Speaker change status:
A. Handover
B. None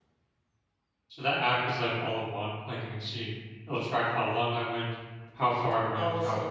A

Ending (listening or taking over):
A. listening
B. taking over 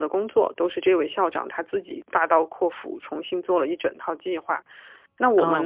A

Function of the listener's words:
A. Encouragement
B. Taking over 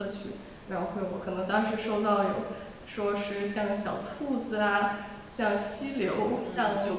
B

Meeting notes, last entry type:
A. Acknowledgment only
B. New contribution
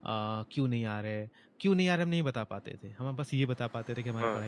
A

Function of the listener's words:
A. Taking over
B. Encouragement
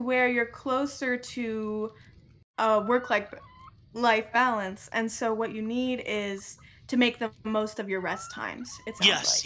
A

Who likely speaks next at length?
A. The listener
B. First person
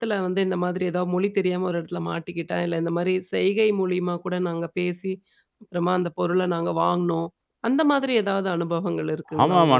A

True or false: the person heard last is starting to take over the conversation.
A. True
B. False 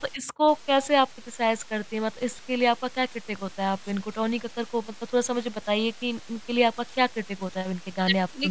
A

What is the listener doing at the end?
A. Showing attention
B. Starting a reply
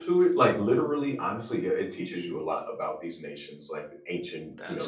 A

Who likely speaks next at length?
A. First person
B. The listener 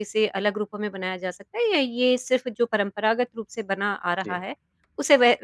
A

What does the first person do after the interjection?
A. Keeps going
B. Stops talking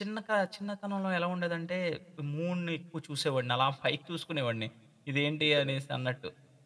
A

